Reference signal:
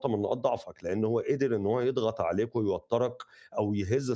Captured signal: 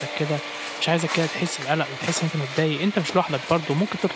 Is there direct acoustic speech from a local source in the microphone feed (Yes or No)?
Yes